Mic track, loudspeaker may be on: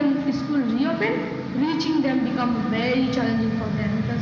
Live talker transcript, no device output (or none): none